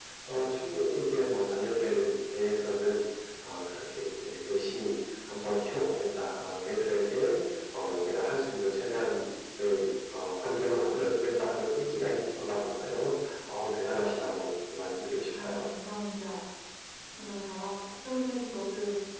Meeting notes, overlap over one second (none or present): none